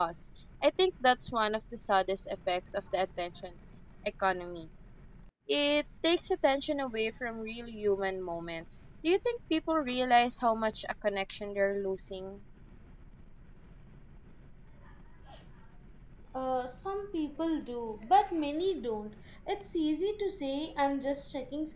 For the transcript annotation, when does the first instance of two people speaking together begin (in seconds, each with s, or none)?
none